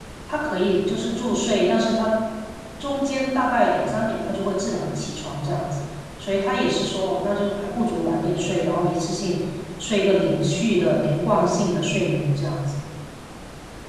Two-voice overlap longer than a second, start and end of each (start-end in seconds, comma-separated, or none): none